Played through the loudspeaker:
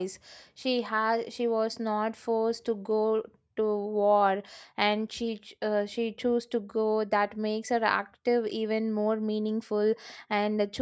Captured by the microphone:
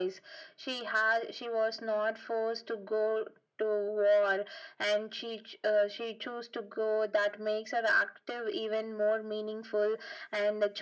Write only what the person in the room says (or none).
none